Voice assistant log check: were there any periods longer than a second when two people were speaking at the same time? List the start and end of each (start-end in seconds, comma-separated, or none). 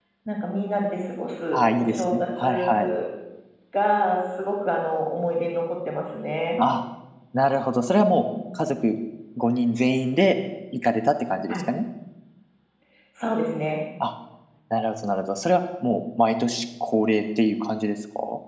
1.5-2.9